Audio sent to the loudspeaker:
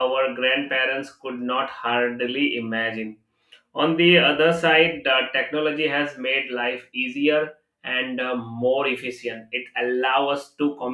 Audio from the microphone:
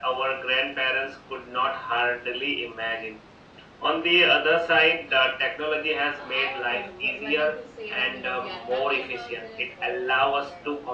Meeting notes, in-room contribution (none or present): present